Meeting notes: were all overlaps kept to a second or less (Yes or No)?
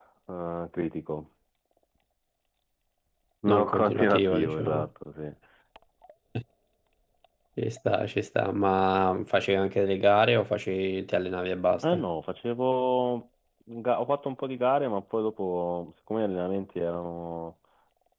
No